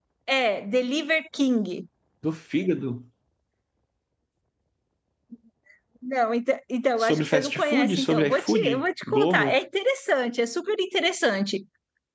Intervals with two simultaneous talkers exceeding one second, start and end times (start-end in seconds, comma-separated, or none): 7.0-9.6